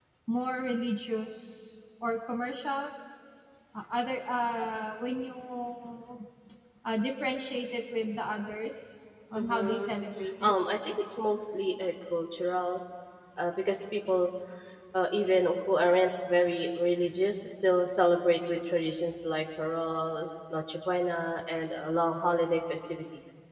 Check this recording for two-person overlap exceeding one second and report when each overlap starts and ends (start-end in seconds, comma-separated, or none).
none